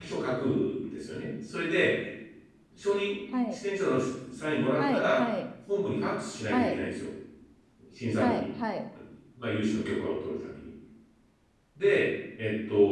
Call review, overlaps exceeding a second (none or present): none